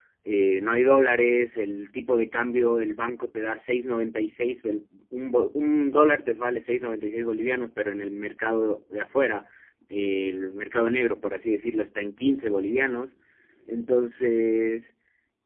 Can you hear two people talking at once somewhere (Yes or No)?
No